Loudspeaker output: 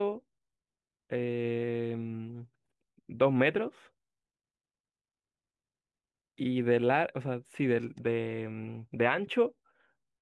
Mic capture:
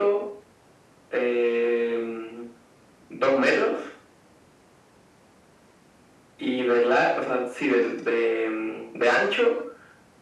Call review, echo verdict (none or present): present